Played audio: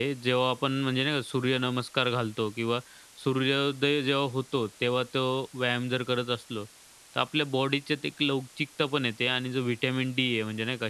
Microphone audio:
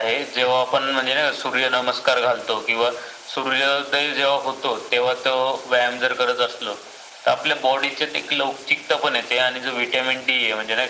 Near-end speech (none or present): none